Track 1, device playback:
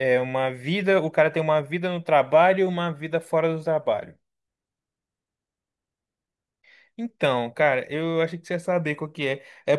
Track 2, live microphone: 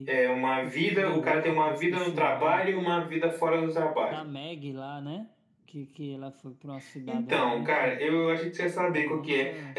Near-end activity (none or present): present